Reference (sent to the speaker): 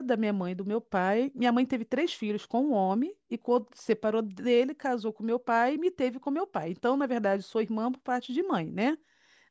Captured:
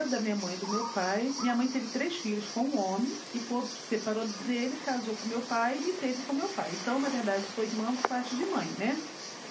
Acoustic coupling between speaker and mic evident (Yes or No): Yes